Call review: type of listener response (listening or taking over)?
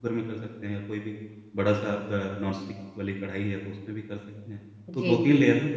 listening